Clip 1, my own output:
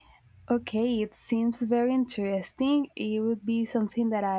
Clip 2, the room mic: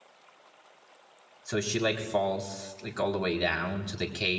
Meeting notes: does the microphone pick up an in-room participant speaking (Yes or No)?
Yes